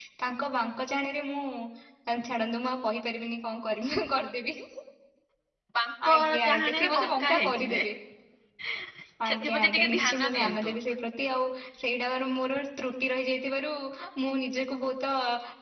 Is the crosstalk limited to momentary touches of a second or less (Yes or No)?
No